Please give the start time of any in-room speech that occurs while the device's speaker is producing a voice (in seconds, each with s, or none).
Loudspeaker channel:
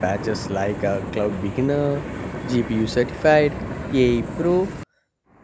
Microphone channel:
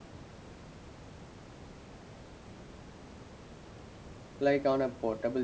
4.4 s